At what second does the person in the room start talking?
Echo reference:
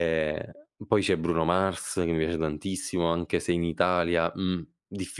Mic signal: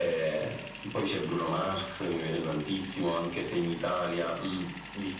none

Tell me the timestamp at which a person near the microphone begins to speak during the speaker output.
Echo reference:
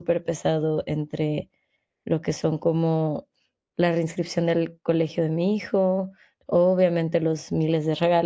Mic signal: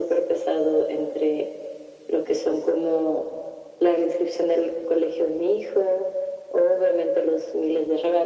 none

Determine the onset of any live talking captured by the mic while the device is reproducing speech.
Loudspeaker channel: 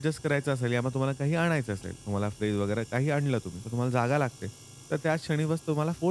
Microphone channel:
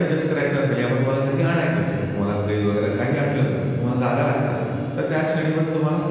none

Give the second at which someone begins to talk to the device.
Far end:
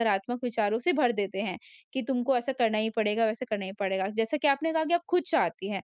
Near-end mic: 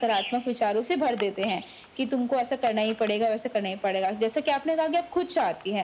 none

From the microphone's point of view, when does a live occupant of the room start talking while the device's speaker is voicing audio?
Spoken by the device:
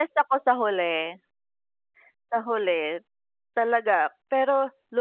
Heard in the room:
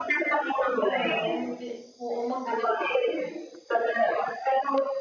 1 s

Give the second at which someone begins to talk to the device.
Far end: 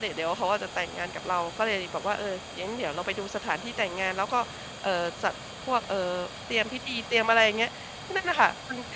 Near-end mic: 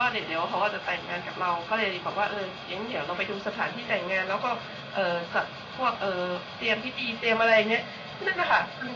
none

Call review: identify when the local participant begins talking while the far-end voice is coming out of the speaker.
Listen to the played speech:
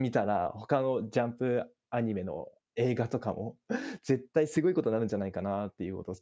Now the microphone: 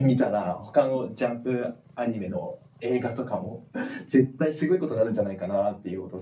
none

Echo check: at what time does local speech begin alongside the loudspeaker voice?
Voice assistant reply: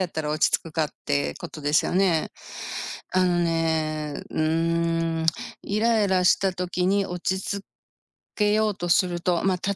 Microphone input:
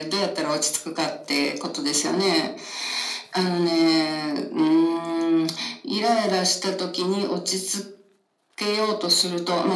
none

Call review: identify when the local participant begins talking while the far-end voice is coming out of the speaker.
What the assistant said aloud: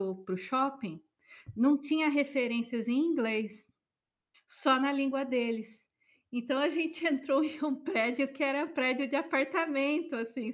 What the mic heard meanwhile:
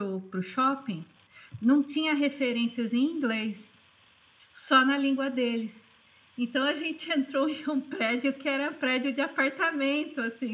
none

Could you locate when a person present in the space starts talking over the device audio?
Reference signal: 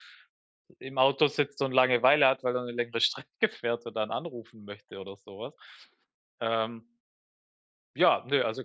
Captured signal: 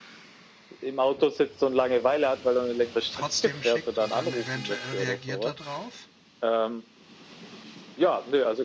3 s

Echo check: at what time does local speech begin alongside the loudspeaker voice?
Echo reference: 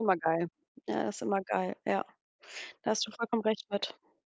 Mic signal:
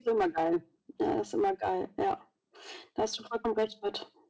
none

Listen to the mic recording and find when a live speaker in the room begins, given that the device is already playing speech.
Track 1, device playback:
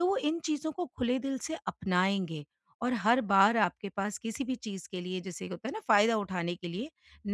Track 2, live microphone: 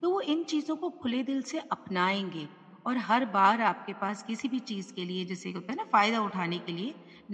none

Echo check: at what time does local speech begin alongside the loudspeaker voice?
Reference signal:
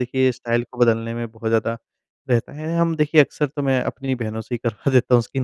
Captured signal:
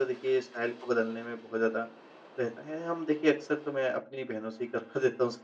none

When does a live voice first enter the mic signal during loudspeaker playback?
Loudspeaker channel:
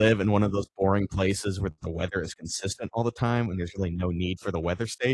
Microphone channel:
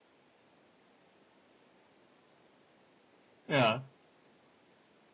3 s

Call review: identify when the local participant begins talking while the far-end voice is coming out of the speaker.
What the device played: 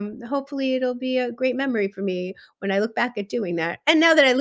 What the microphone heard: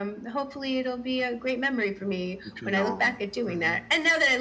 2 s

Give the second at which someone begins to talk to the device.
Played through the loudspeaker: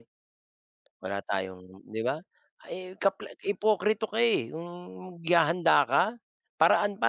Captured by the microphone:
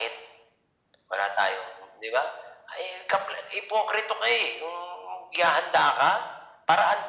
none

